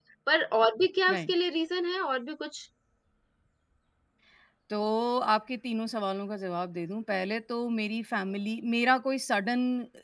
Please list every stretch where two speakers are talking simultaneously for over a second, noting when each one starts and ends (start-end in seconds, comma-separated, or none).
none